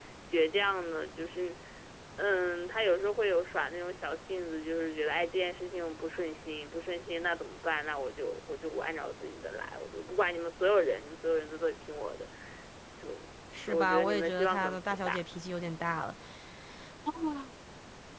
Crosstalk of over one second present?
Yes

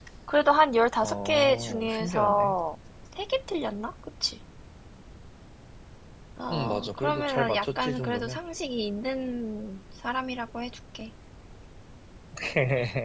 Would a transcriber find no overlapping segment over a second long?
No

